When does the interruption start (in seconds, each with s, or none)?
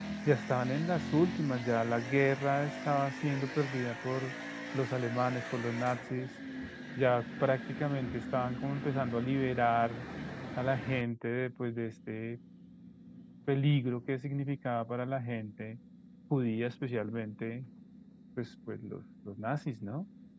none